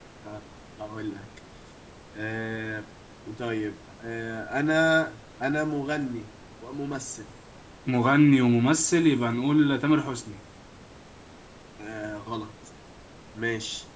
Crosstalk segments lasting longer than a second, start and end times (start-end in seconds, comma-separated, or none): none